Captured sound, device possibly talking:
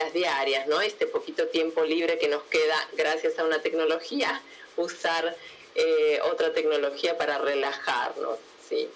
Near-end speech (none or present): none